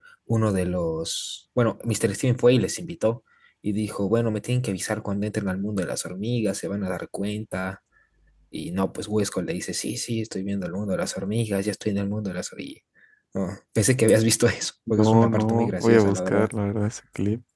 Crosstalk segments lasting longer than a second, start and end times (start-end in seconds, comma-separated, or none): 15.0-16.5